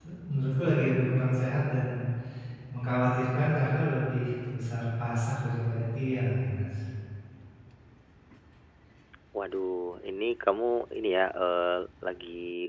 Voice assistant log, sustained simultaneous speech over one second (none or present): none